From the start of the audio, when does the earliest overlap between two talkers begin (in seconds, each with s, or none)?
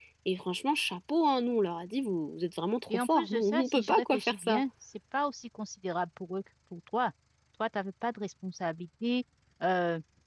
2.9 s